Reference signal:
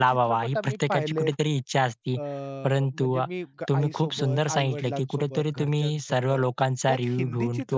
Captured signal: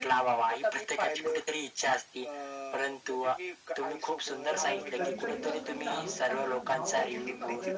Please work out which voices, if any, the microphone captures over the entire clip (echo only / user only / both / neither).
both